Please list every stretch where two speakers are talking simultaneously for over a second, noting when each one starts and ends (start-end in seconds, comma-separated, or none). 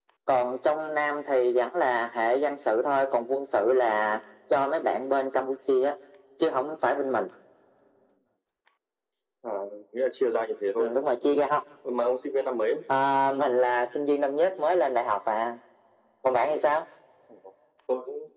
none